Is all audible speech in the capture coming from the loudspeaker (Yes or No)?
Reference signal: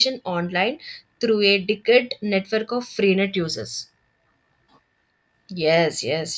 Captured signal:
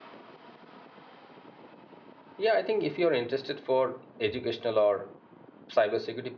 No